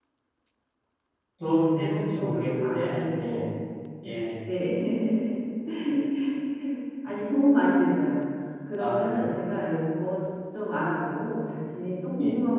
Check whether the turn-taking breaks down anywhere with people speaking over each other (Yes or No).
Yes